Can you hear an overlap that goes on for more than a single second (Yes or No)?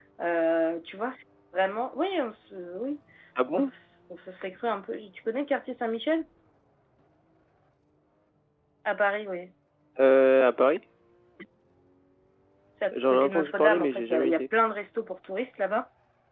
Yes